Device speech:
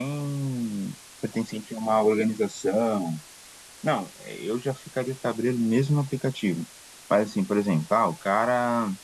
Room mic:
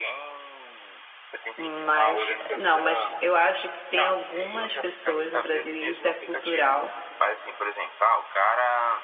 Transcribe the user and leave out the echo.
Mas, não, mas eu acho que tem algumas pessoas no Brasil, e isso é cultural,

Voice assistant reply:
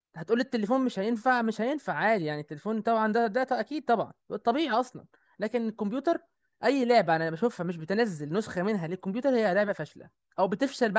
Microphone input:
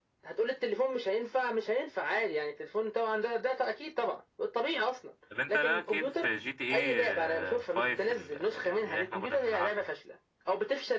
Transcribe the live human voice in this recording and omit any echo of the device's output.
طب انت لا كيف جي تي ايه 5 ال- اللي احنا كنا بنلعبها

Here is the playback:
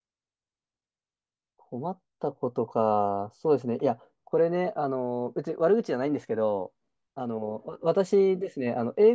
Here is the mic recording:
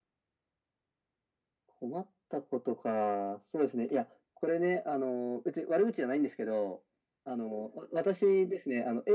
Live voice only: none

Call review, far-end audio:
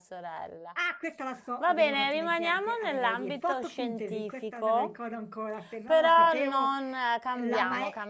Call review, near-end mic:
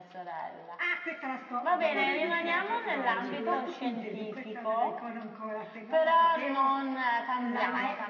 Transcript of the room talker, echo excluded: sarebbe troppo facile.

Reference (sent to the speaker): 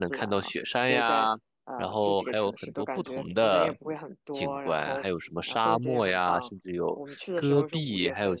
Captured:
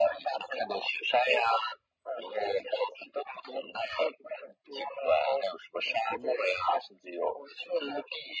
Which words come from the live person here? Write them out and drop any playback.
none

